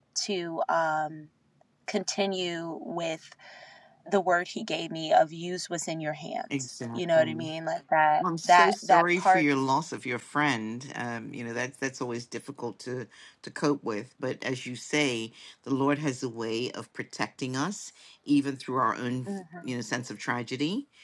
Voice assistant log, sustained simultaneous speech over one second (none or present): present